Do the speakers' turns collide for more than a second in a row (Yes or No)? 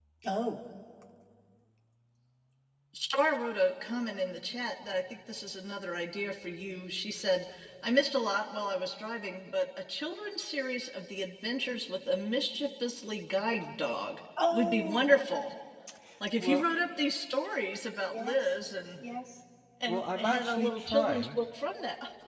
Yes